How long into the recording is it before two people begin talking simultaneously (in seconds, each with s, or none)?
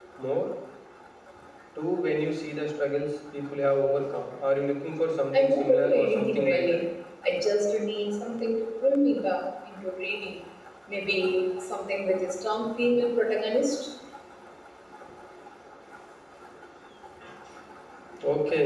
5.3 s